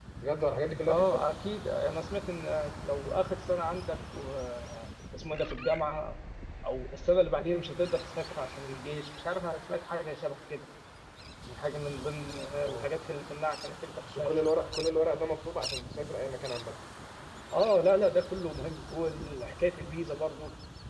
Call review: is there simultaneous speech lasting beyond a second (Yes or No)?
No